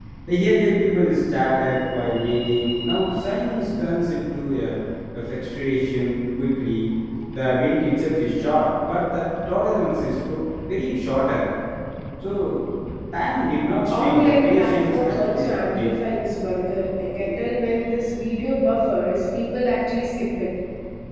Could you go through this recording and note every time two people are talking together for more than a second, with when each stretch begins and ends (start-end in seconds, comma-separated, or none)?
13.9-15.9